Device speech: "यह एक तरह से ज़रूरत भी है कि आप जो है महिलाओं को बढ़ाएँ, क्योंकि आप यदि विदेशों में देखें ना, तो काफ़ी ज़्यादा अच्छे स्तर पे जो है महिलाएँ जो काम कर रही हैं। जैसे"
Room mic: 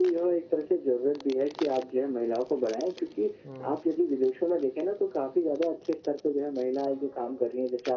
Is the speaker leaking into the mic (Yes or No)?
Yes